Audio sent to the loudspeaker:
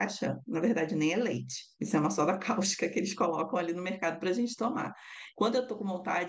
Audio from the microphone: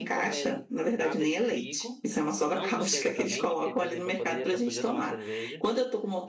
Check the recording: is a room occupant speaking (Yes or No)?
Yes